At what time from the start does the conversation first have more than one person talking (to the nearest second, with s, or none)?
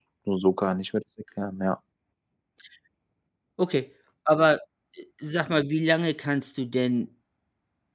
none